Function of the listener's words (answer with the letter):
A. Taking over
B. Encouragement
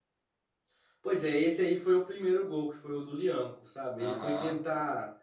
B